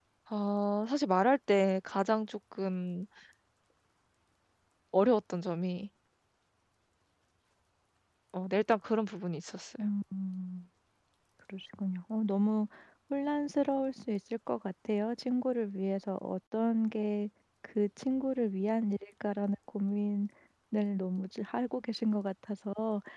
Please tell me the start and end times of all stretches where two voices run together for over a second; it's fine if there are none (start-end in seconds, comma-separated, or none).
none